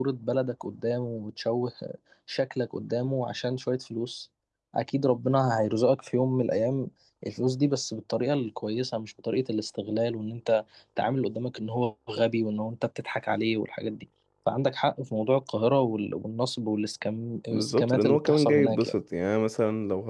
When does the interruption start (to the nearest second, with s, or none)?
18 s